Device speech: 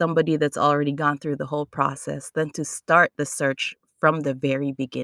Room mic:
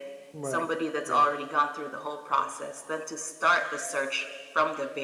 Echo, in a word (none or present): present